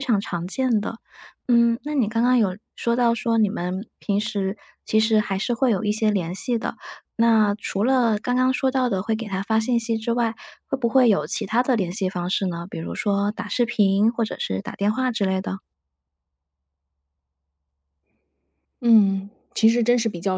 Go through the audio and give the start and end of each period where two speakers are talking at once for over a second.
none

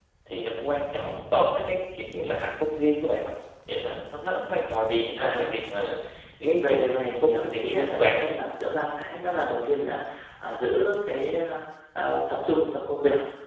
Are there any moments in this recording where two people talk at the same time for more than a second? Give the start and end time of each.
6.6-8.2

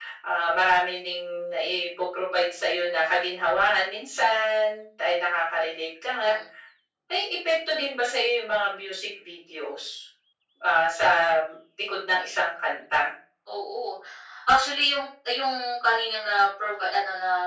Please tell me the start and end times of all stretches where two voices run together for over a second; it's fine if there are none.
none

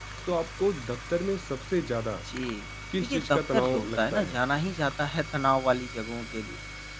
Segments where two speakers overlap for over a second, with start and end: 3.0-4.3

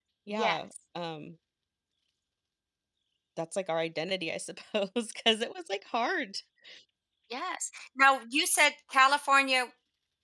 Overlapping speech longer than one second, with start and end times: none

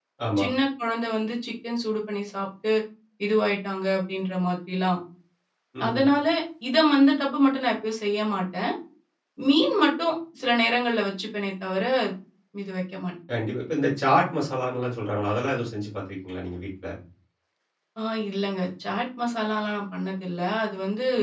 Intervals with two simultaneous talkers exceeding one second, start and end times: none

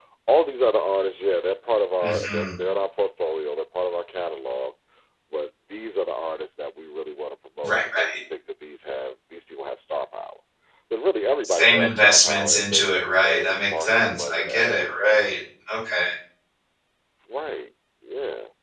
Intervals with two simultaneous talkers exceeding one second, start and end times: 11.4-15.0

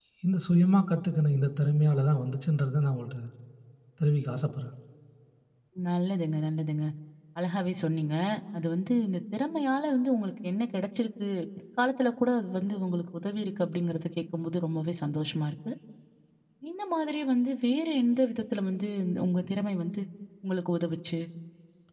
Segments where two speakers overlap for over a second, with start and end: none

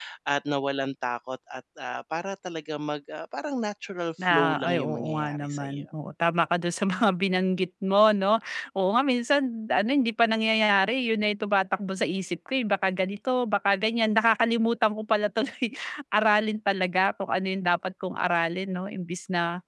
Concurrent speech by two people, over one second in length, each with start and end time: 4.3-5.8

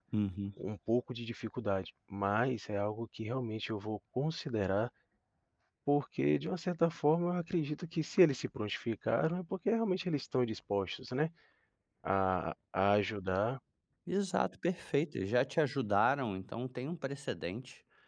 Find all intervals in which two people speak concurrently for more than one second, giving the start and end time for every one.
none

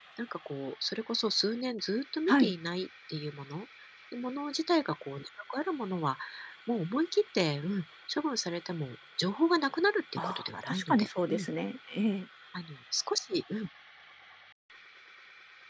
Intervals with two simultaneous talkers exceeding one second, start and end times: 10.2-11.5

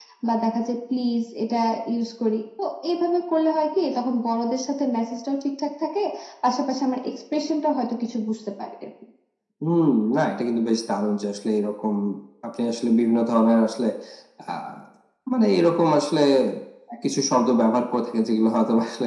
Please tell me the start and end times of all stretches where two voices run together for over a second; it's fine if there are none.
none

